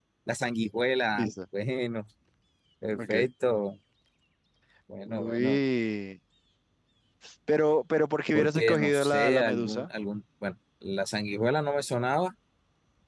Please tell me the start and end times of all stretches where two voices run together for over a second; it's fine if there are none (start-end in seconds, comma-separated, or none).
8.3-9.9